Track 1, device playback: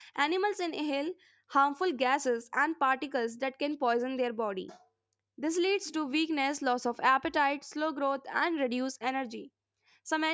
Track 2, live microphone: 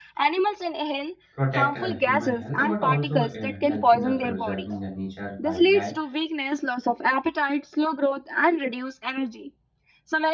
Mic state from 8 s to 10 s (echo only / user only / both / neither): echo only